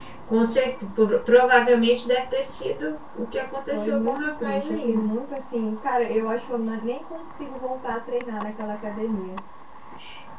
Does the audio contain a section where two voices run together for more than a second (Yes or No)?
Yes